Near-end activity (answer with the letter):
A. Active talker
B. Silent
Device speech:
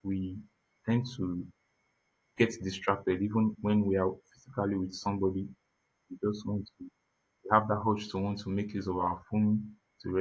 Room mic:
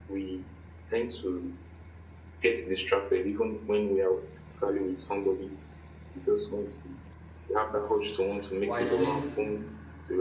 A